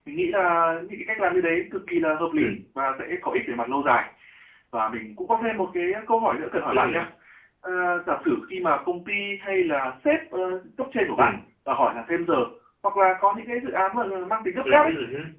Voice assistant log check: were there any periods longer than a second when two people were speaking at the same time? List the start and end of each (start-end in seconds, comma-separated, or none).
none